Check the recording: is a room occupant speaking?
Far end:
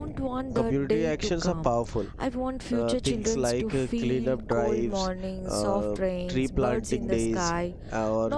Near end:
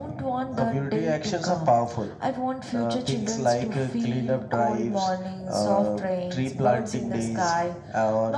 No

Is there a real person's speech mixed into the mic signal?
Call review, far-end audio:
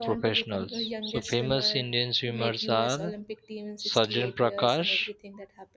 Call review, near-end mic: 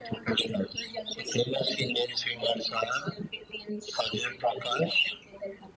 No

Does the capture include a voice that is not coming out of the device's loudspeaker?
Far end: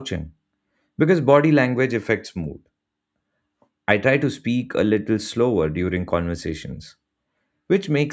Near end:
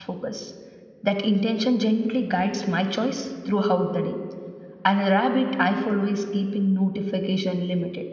Yes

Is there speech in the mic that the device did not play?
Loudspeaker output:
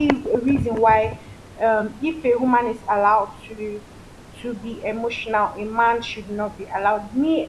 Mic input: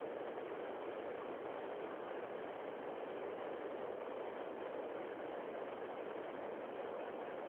No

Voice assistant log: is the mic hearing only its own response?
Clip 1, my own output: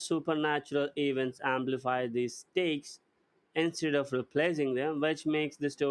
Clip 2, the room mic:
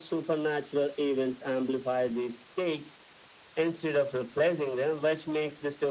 Yes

